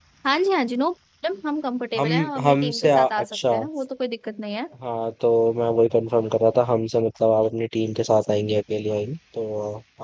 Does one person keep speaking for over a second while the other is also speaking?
Yes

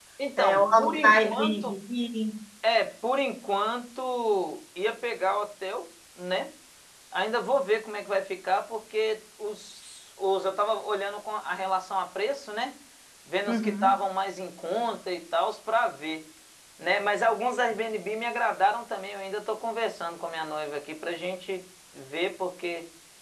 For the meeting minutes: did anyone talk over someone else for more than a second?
Yes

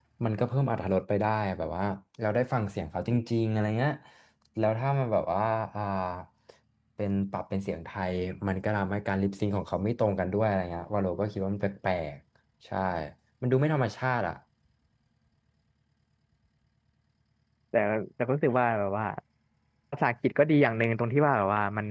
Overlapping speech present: No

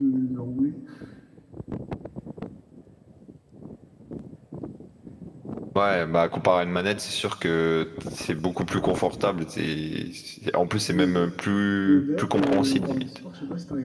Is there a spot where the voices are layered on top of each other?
Yes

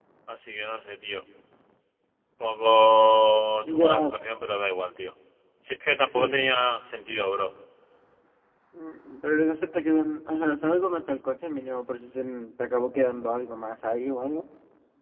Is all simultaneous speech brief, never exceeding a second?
Yes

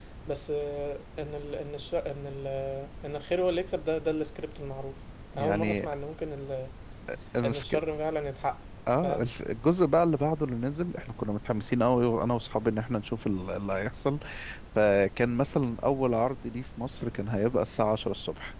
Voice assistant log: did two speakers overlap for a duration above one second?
No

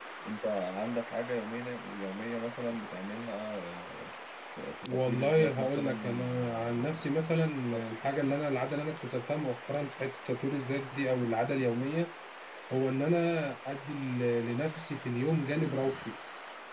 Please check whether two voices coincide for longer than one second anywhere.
Yes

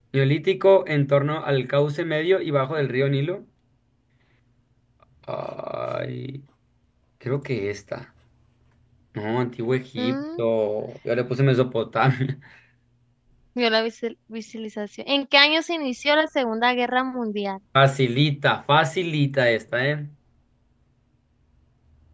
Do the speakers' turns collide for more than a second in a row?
No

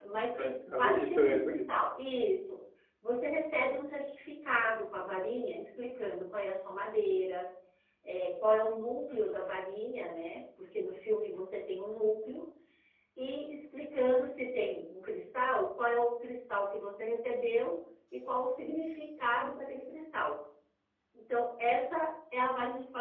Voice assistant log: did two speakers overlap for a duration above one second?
Yes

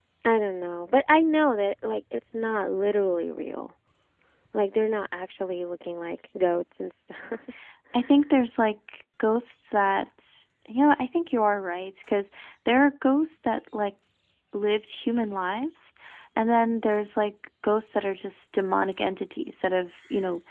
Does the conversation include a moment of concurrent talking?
No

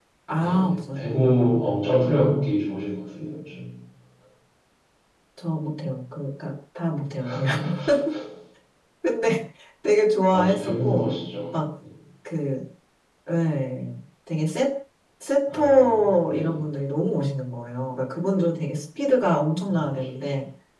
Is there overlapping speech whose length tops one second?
Yes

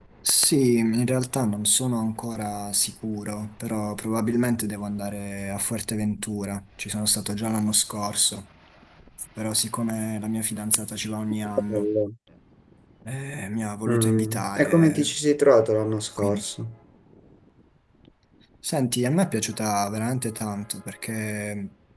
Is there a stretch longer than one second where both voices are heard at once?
Yes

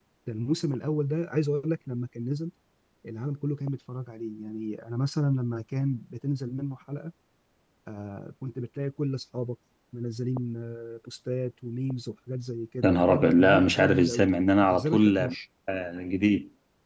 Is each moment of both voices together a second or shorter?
No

